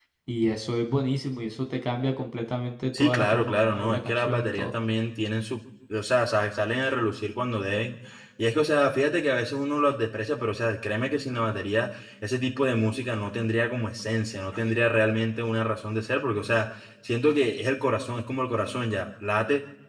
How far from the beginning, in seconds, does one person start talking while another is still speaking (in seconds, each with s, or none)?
2.9 s